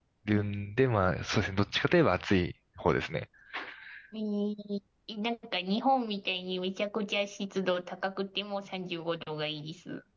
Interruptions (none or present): none